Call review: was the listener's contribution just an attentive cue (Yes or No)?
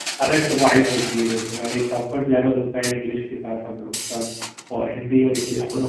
Yes